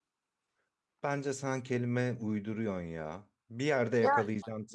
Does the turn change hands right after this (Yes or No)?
No